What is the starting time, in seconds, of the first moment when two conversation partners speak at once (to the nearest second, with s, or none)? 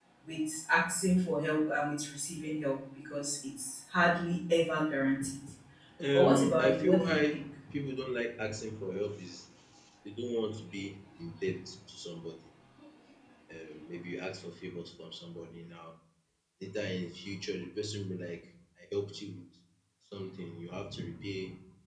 6 s